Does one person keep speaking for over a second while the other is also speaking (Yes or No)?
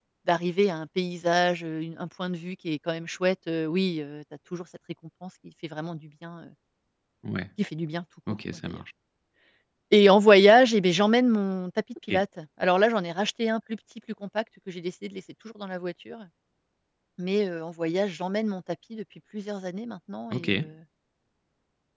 No